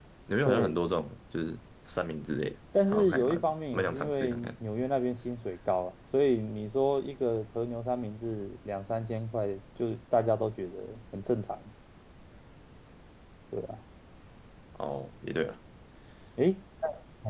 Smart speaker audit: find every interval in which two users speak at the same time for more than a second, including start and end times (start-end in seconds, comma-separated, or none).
2.9-4.5